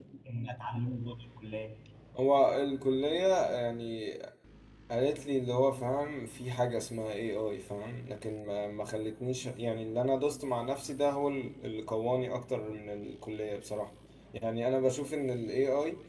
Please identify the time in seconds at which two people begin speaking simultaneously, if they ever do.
none

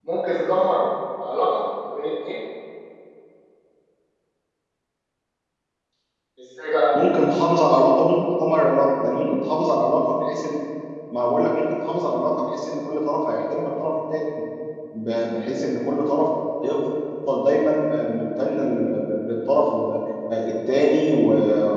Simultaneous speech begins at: none

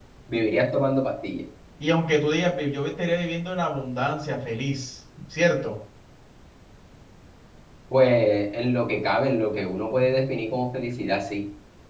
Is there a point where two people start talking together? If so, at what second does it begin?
none

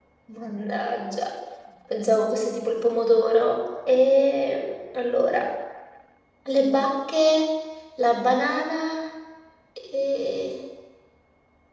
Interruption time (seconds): none

